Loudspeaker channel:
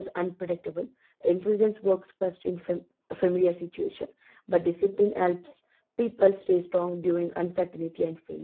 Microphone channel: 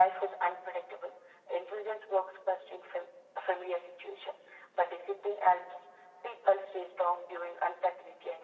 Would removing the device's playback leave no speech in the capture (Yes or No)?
Yes